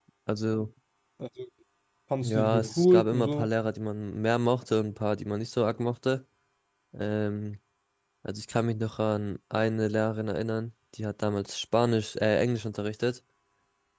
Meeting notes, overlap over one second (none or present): present